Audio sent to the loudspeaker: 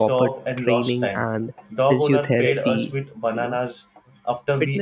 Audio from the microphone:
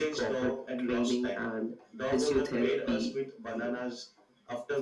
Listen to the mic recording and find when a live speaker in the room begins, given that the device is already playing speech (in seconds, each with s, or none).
none